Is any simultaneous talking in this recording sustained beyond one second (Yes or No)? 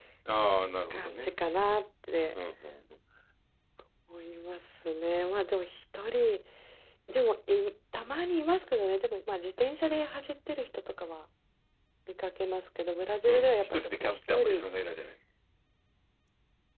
Yes